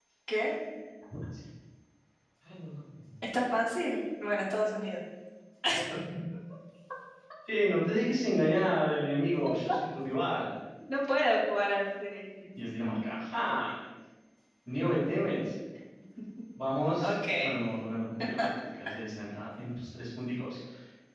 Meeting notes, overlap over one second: none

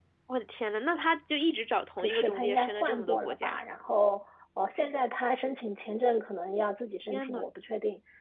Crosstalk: present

